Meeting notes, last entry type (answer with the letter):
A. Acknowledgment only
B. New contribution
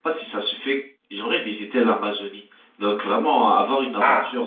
A